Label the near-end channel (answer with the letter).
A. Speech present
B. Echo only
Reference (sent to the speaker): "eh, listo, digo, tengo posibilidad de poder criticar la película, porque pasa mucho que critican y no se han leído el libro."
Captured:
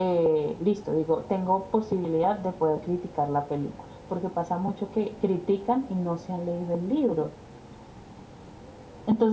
B